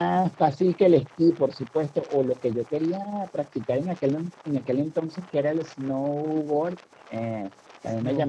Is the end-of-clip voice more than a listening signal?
No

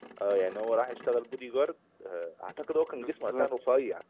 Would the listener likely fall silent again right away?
No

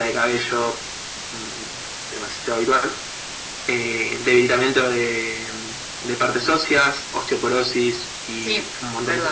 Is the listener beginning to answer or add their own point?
Yes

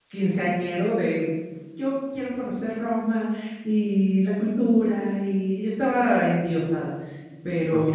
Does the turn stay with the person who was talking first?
No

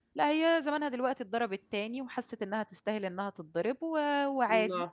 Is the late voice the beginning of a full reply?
No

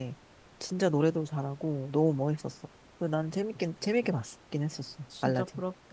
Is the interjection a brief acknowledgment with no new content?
No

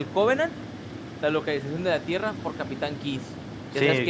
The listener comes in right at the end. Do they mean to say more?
Yes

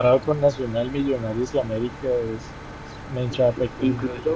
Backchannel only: No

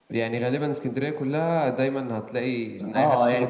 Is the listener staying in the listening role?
No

